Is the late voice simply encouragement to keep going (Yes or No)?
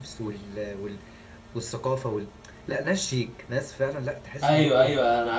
No